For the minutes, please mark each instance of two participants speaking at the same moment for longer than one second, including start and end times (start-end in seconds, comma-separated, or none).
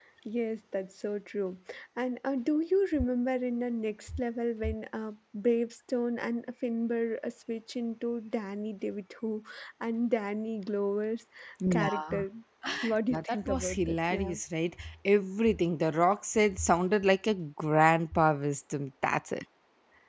13.1-14.3